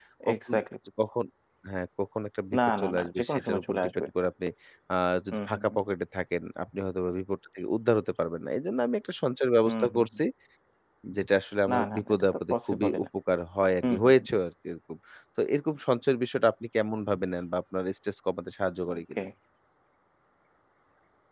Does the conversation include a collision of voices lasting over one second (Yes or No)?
Yes